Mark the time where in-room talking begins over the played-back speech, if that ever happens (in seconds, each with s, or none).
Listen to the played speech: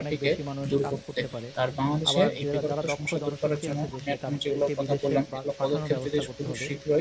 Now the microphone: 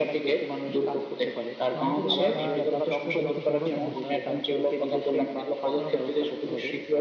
1.7 s